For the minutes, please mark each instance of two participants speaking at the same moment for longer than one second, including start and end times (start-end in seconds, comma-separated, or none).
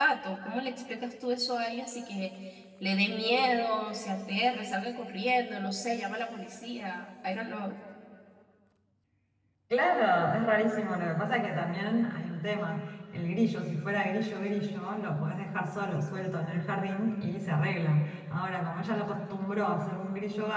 none